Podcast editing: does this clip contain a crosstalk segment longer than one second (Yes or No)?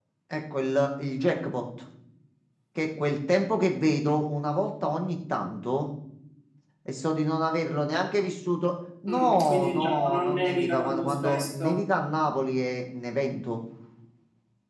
Yes